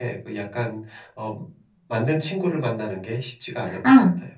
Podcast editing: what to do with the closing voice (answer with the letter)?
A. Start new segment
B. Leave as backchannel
A